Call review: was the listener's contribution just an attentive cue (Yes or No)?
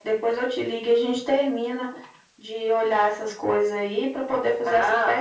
No